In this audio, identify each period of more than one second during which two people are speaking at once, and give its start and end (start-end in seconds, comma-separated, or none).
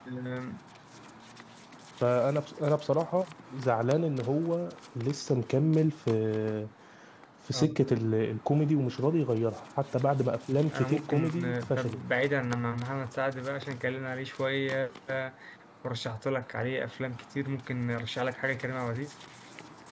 10.7-12.0